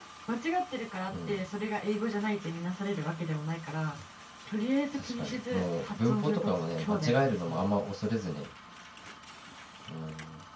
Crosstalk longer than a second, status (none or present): present